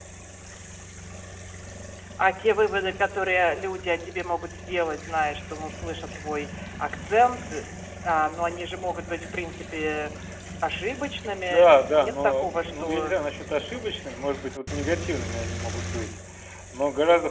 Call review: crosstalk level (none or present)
present